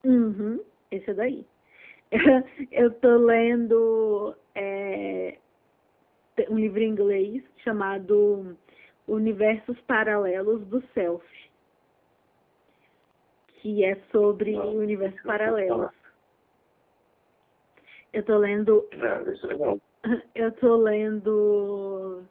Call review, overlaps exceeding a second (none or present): present